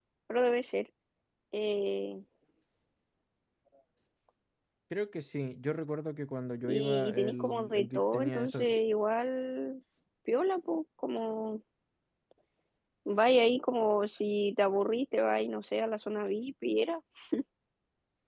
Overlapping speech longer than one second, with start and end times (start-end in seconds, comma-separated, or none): 6.6-8.7